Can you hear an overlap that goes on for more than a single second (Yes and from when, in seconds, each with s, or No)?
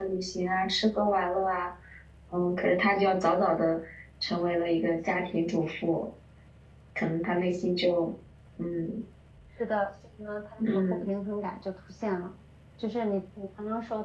No